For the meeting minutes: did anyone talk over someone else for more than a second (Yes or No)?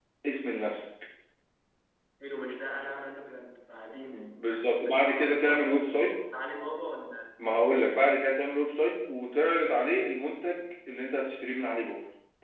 Yes